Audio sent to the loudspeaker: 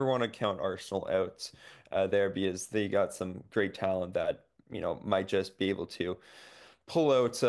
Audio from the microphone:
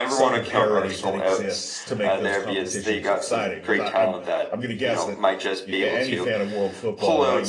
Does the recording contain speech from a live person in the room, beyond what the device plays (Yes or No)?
Yes